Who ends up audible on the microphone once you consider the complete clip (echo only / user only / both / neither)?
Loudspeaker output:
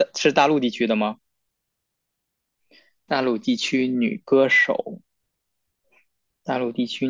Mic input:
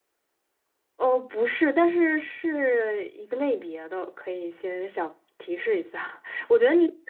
user only